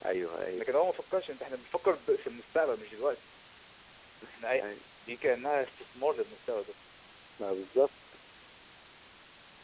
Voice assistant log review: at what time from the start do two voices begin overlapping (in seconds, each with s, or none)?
none